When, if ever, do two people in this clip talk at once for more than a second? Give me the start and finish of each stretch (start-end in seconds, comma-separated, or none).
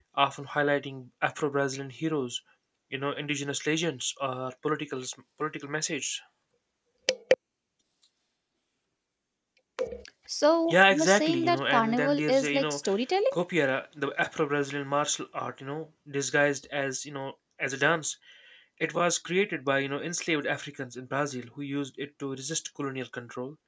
10.7-12.8